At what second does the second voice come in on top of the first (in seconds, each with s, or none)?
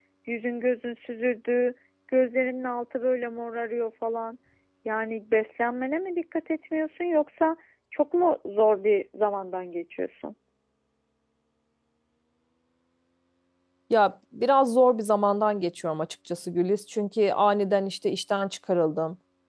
none